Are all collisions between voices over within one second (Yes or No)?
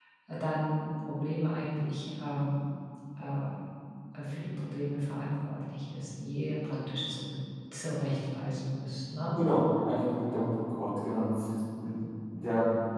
Yes